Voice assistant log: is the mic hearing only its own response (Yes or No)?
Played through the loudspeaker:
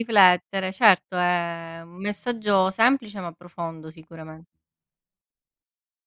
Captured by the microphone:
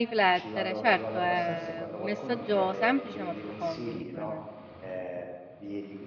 No